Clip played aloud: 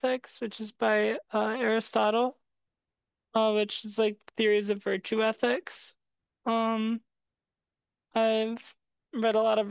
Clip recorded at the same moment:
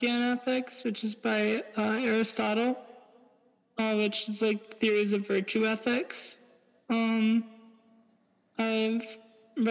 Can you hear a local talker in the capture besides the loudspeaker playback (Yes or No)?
No